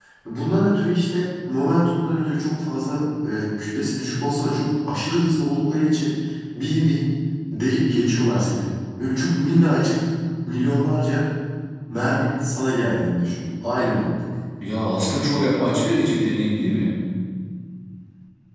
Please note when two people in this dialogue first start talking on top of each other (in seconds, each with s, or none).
none